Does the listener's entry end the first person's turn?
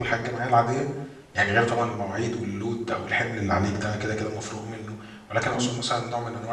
No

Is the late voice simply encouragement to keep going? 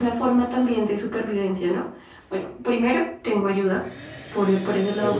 Yes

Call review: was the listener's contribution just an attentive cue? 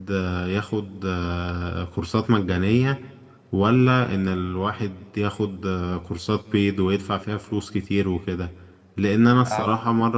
Yes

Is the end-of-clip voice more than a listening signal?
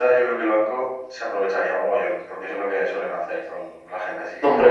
Yes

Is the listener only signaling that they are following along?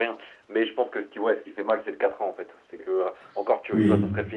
Yes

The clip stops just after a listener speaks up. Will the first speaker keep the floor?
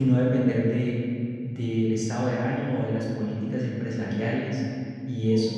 No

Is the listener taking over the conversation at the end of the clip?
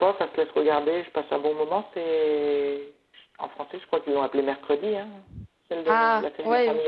Yes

